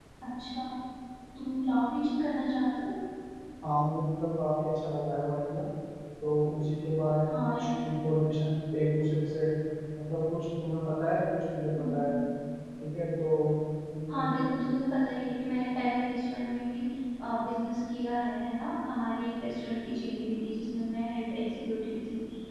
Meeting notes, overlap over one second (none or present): none